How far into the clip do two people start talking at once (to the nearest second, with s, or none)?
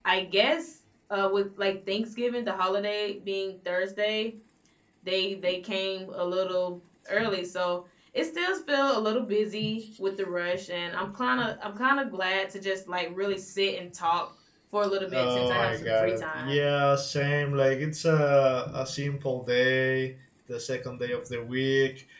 15 s